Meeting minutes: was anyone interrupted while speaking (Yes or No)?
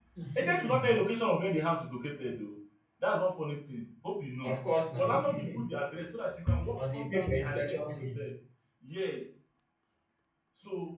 Yes